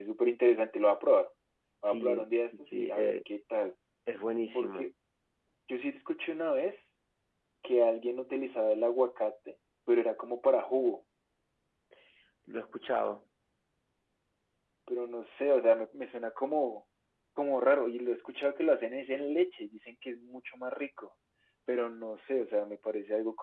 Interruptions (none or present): present